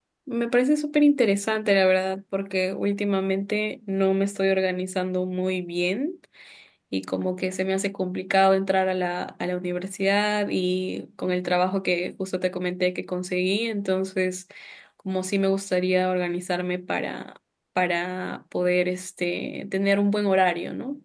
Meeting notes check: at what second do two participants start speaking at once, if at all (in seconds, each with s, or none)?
none